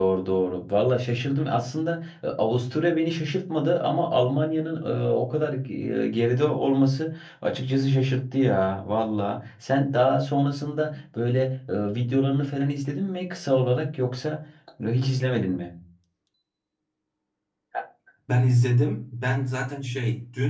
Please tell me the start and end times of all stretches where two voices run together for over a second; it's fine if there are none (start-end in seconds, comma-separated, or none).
none